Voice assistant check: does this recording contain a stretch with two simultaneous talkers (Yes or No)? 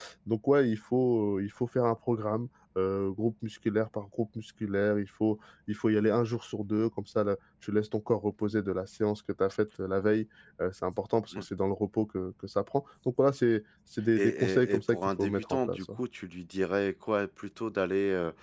Yes